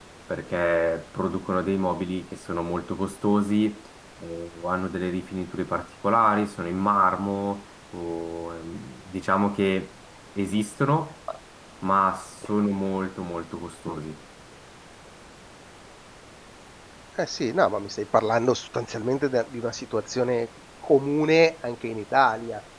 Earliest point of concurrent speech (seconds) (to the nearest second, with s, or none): none